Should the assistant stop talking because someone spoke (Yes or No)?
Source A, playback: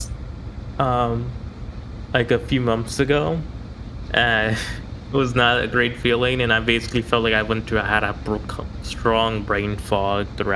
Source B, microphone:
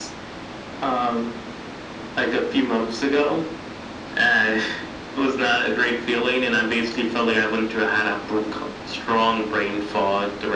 No